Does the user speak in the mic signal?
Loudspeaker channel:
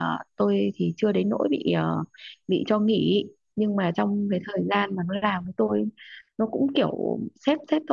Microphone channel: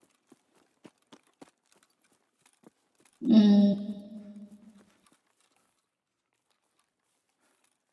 Yes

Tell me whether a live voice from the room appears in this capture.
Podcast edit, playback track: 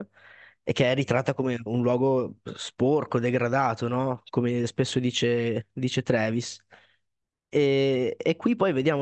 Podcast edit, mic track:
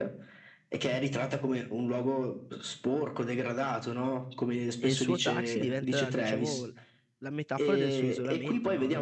Yes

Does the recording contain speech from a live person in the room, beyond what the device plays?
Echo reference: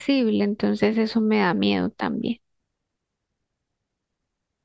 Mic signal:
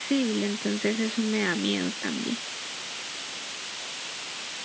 No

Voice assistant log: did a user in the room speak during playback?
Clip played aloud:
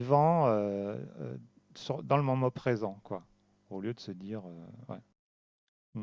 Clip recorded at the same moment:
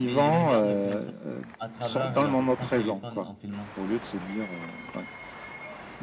Yes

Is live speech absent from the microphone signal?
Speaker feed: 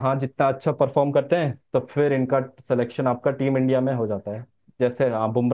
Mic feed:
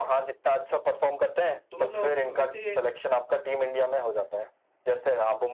No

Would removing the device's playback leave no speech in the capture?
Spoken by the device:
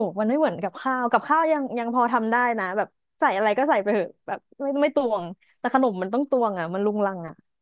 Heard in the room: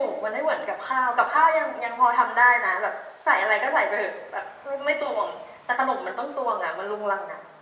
Yes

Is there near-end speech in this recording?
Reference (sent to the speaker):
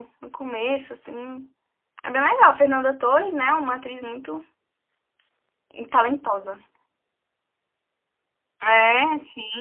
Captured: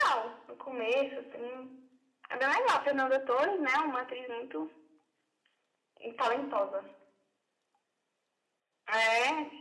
No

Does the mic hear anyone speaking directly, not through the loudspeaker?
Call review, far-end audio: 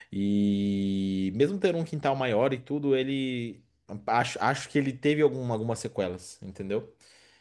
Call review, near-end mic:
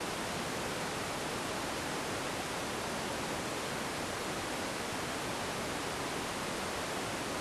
No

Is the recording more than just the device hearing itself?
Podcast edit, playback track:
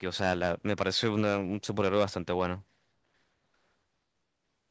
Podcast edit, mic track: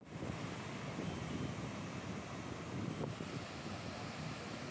No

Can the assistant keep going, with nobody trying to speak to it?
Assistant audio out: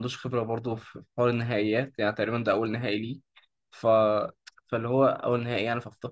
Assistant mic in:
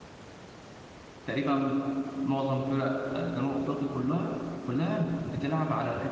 No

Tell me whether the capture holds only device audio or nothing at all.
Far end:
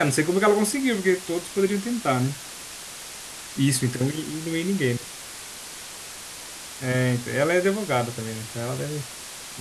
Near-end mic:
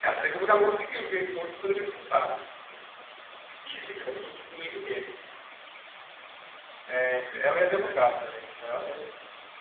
Yes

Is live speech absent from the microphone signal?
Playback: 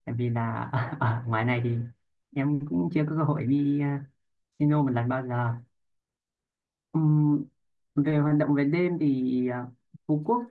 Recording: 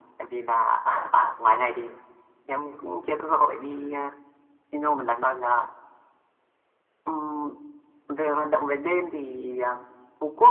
Yes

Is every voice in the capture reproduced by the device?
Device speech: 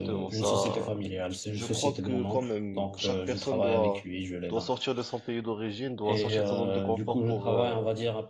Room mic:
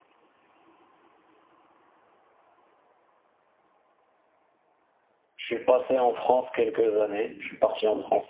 No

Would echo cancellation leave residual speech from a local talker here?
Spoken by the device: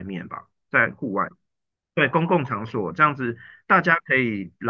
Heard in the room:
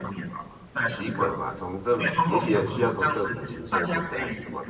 Yes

